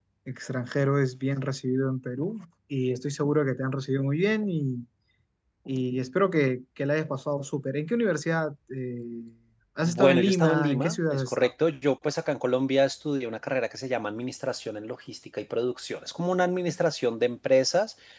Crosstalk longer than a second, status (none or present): present